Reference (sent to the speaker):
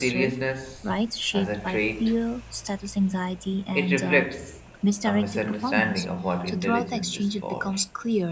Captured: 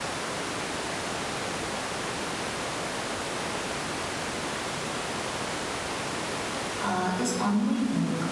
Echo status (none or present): none